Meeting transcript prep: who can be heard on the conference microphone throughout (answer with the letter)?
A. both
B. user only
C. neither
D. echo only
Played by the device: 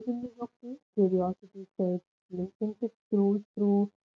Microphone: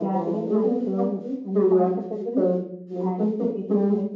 A